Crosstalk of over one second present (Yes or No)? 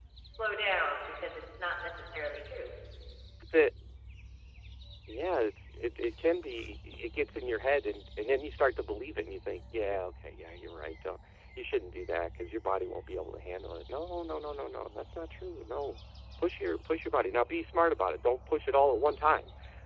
No